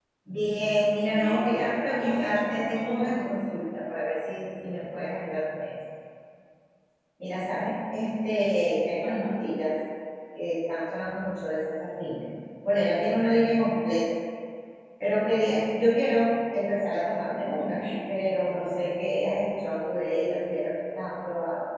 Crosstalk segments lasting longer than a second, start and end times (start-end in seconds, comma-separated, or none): 1.1-3.1